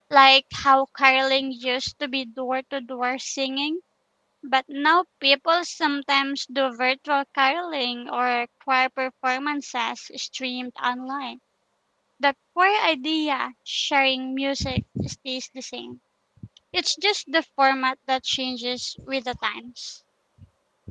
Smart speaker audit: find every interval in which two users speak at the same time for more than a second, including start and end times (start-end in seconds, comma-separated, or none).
none